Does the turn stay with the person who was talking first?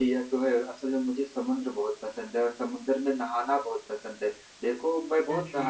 Yes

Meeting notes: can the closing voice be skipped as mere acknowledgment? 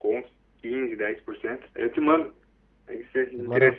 No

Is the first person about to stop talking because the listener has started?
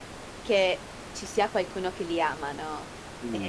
Yes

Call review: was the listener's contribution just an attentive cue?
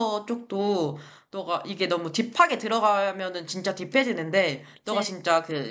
Yes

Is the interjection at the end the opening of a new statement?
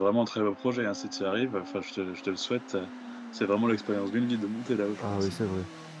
Yes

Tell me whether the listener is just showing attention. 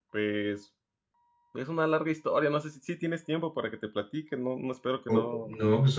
No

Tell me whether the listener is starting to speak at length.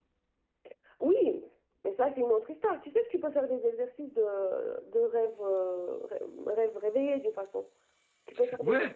Yes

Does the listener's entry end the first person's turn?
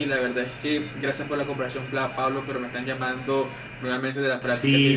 Yes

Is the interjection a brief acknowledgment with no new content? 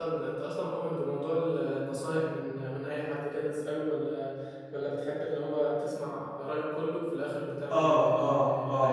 No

